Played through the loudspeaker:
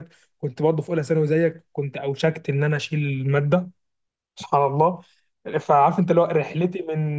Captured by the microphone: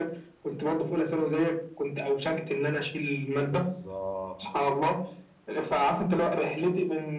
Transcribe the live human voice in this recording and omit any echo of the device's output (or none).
بالظبط